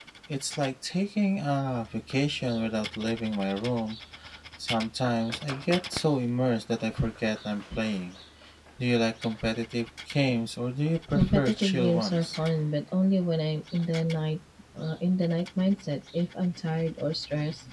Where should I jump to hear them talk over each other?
11 s

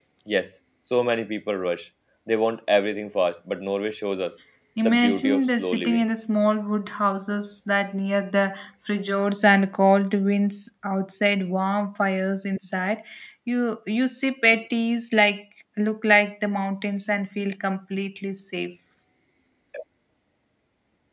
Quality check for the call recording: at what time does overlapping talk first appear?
5 s

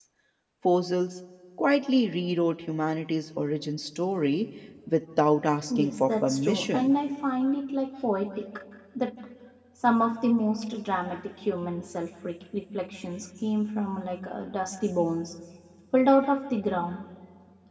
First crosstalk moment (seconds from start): 6 s

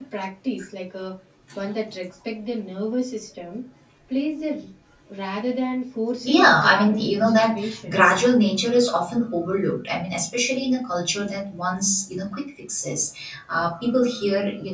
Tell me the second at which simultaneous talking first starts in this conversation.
6 s

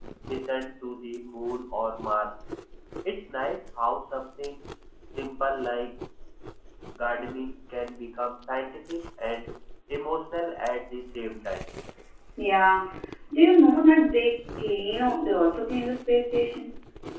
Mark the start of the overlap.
none

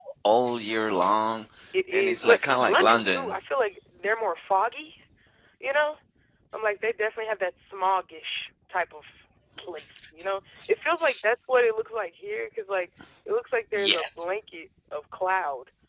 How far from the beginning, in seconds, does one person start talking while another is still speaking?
2 s

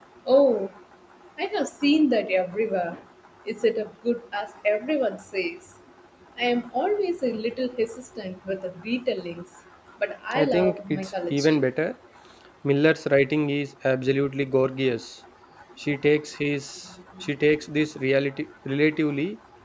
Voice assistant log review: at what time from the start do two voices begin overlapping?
10 s

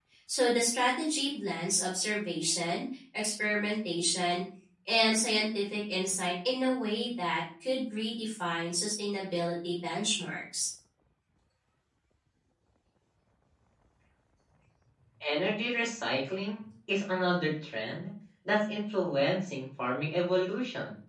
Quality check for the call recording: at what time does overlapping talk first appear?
none

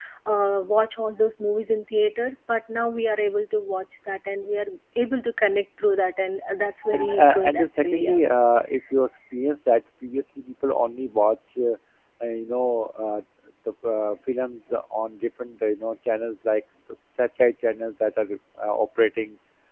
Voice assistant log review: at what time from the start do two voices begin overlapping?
7 s

